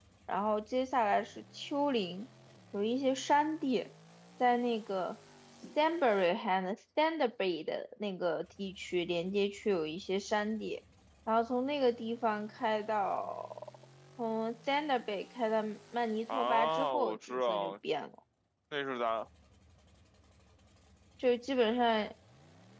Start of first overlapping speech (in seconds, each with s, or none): 16.3 s